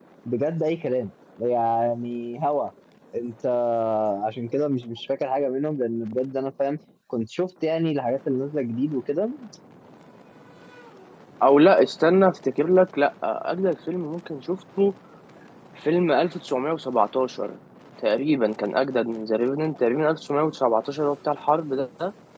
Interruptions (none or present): none